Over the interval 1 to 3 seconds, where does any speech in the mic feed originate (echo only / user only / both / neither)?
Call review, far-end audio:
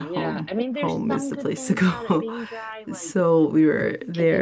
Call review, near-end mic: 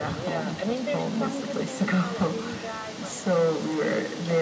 echo only